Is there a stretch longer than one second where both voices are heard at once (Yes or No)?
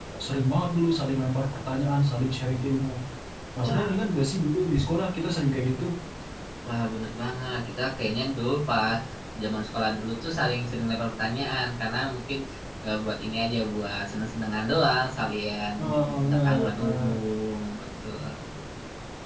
Yes